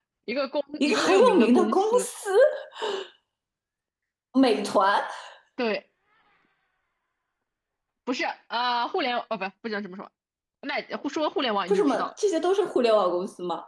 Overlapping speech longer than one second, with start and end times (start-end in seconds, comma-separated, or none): 0.8-2.0